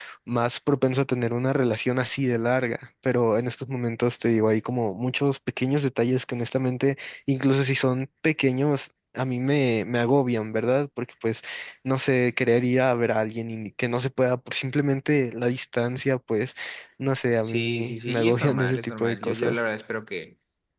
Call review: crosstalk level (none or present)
present